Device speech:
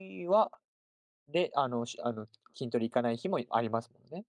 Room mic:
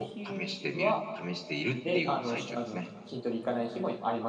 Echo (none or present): present